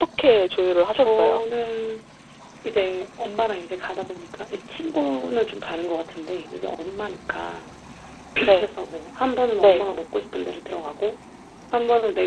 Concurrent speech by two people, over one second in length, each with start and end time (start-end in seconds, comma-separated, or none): none